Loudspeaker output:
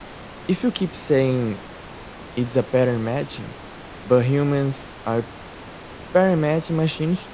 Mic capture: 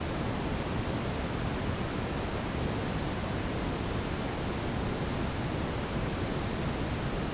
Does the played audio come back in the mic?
No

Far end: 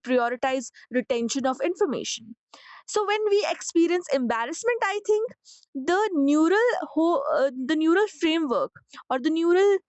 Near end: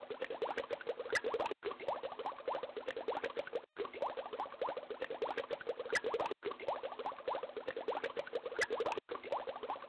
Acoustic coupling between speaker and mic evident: No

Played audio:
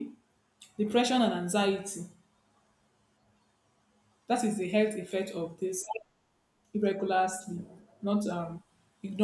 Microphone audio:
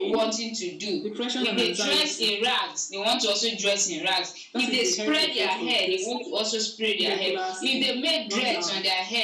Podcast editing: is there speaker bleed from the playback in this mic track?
Yes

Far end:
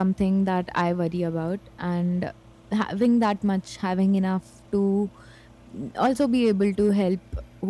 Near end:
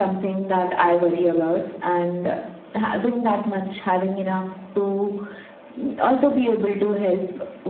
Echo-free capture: No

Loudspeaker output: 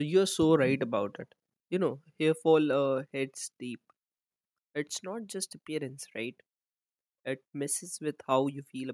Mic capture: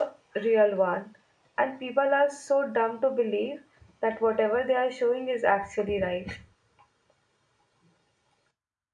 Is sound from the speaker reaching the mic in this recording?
No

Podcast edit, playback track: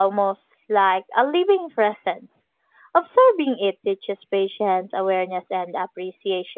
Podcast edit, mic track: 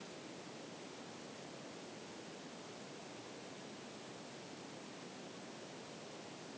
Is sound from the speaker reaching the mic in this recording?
No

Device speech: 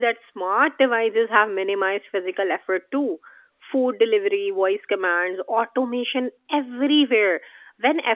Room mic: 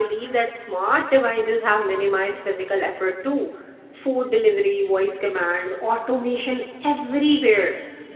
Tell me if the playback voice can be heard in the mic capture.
Yes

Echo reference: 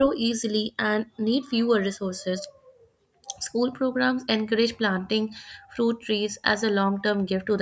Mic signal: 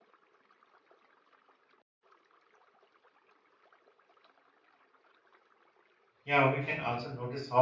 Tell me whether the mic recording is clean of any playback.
Yes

